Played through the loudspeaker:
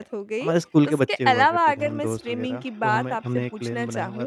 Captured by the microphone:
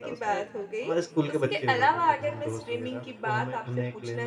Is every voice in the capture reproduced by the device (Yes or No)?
Yes